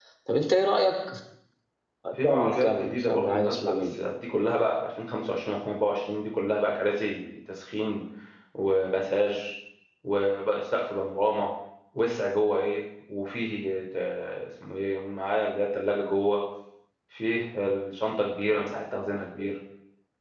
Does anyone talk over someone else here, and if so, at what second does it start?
2.2 s

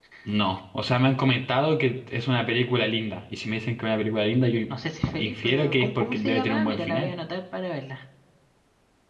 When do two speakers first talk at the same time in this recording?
5.2 s

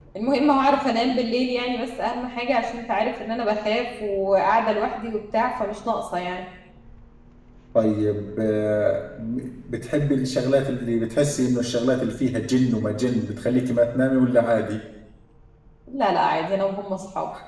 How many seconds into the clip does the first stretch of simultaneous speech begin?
none

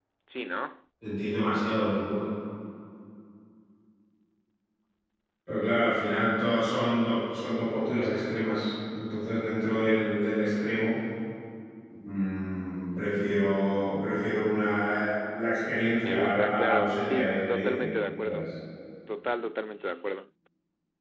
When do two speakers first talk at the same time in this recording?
16.0 s

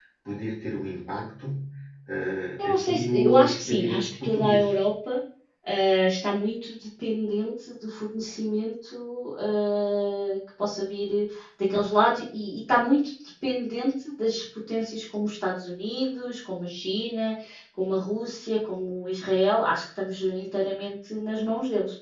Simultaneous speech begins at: 2.6 s

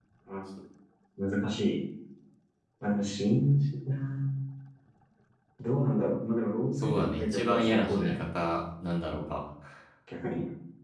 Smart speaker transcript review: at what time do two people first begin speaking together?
6.8 s

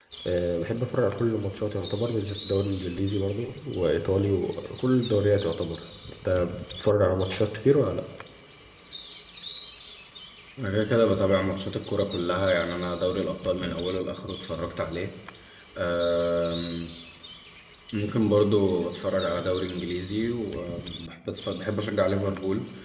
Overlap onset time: none

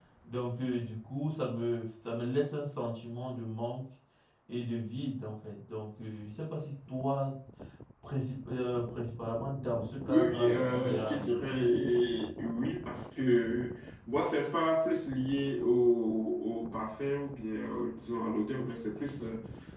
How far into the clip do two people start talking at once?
10.1 s

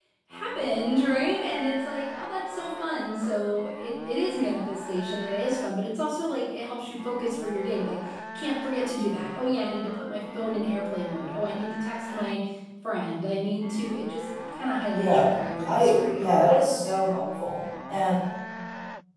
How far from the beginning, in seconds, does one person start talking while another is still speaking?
14.9 s

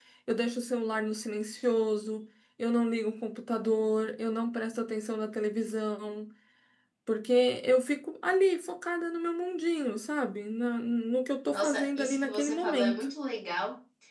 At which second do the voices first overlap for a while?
11.5 s

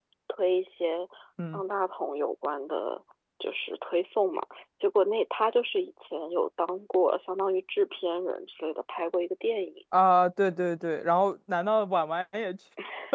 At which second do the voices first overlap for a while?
none

